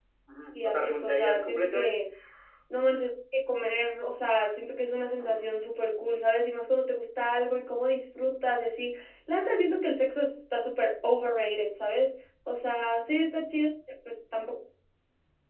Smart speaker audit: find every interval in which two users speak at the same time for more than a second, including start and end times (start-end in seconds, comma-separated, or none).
0.5-1.9